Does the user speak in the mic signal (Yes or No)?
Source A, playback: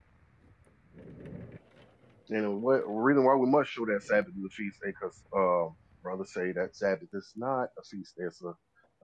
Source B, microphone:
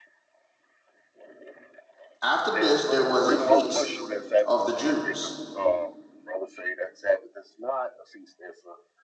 Yes